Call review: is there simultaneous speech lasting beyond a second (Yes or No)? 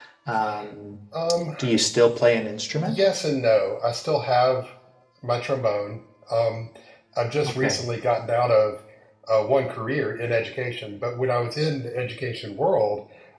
No